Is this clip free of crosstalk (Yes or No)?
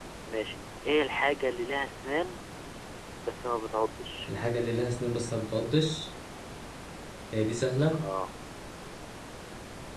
Yes